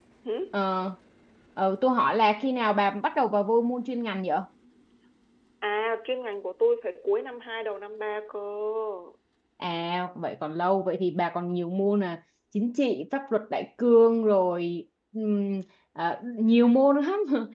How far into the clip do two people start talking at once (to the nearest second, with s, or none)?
none